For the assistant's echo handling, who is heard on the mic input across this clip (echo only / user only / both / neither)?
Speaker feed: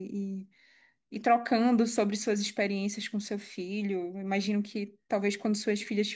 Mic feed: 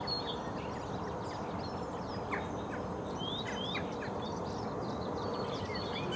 neither